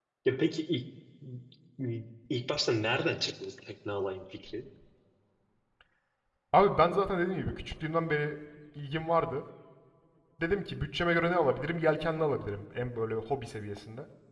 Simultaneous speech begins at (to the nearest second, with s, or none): none